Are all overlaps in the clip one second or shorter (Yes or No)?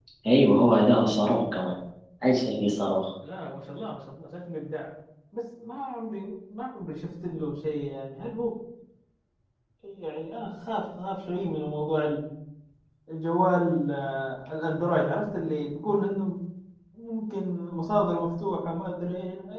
Yes